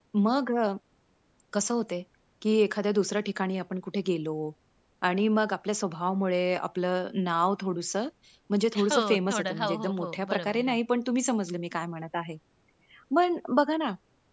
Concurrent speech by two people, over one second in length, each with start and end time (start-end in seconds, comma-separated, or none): 8.9-10.8